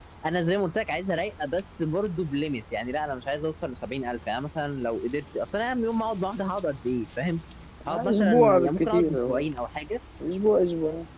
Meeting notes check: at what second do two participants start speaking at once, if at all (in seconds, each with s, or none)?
7.9 s